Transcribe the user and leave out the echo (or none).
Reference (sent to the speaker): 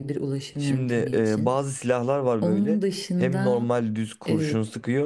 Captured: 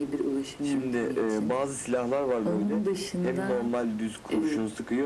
none